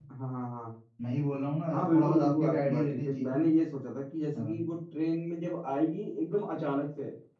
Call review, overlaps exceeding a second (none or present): present